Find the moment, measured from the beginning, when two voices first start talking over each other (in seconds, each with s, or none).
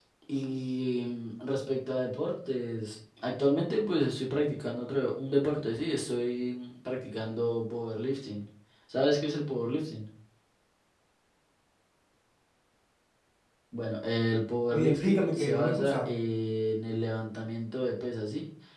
14.7 s